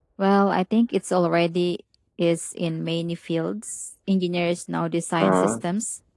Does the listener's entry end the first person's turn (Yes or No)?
No